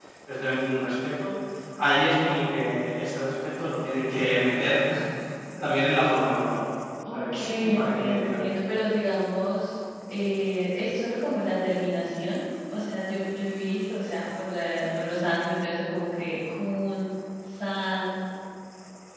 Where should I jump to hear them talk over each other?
7.1 s

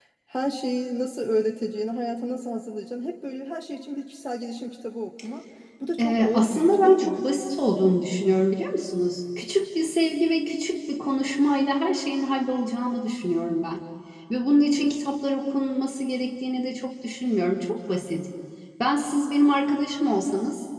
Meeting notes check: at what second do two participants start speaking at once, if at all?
6.0 s

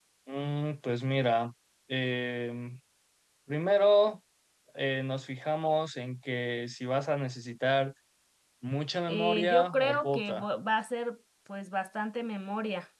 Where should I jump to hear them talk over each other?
9.1 s

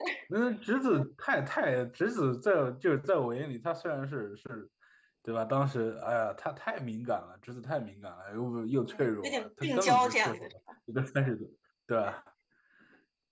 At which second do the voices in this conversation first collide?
8.9 s

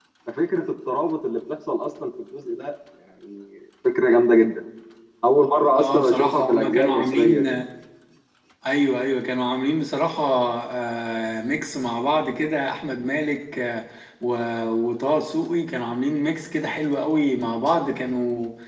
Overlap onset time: 5.8 s

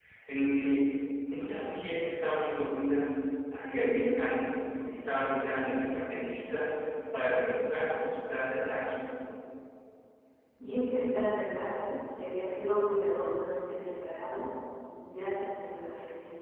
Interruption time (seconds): none

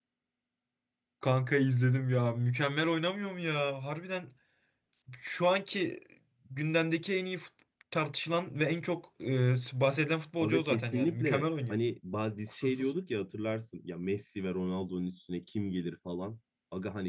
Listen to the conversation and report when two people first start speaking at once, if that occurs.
10.4 s

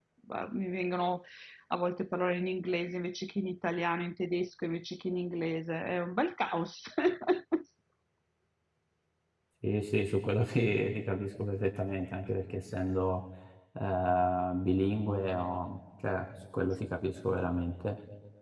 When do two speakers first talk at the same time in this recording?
none

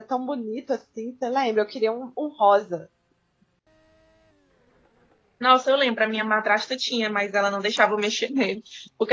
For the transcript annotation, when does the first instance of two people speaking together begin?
none

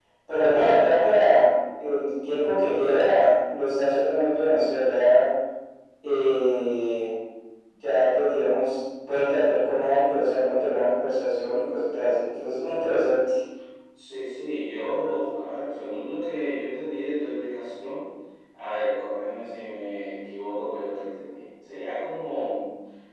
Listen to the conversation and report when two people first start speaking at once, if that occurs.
none

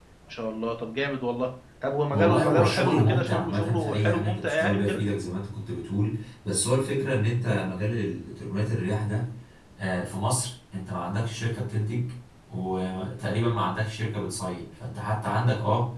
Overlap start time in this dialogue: 2.1 s

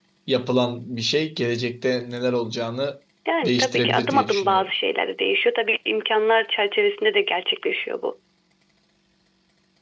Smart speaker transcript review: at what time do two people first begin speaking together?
3.5 s

